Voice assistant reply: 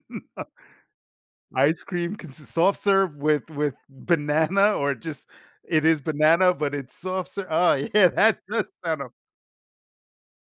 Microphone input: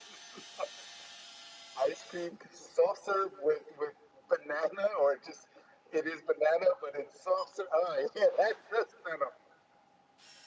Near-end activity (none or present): none